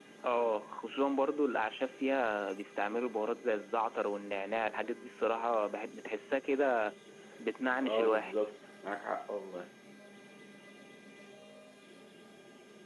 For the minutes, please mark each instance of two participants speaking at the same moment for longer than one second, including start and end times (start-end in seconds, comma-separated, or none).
none